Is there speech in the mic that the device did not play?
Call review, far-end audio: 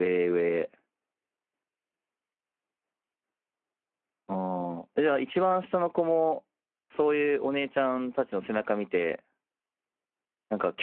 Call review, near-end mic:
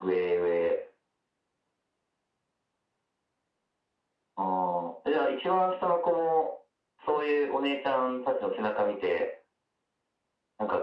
No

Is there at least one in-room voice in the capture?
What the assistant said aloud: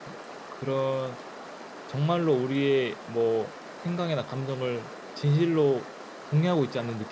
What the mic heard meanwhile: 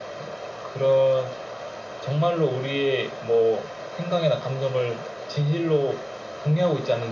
No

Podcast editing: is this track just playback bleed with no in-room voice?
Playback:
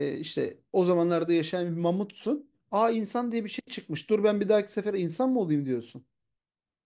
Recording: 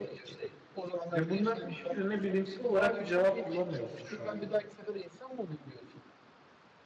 No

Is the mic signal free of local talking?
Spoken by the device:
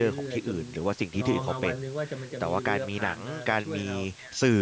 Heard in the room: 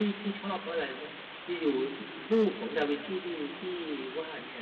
No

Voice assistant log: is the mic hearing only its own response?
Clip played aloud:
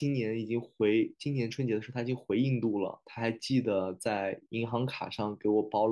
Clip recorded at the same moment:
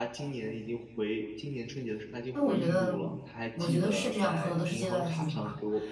No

